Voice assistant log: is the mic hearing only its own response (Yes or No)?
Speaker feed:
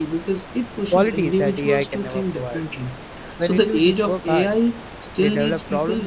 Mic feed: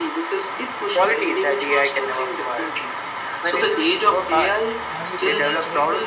No